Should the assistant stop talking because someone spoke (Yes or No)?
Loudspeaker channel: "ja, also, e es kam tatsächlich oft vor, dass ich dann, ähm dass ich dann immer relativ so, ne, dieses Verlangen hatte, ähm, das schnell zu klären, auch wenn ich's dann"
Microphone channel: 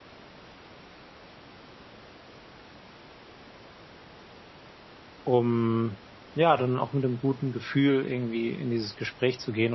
Yes